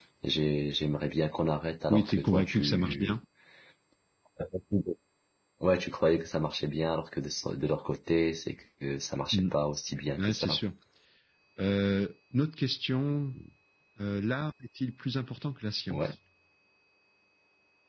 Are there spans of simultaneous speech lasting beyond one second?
Yes, from 1.9 s

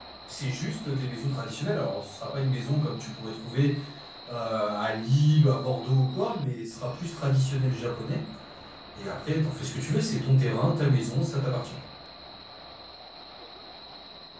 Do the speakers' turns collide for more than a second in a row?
No

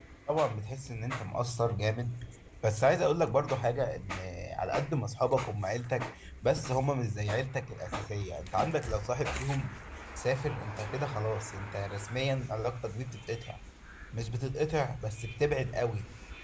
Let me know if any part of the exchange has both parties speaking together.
No

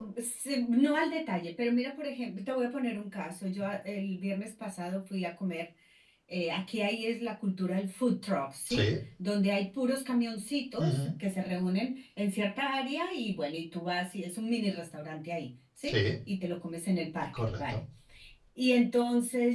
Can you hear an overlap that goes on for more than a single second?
No

